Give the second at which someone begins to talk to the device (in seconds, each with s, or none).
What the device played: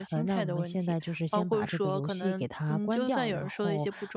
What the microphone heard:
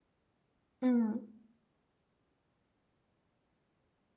0.8 s